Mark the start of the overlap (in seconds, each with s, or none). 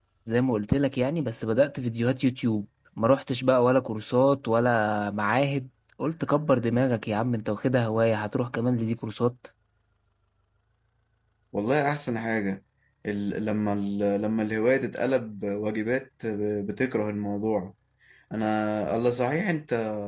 none